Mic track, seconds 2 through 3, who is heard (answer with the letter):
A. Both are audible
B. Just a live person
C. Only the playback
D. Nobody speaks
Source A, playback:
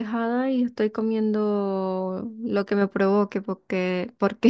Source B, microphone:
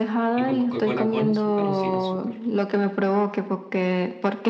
A